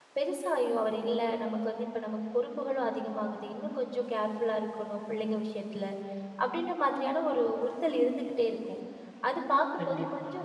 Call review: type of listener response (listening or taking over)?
listening